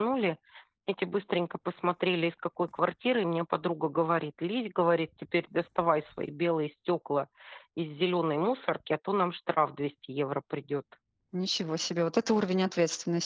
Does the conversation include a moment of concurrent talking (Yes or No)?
No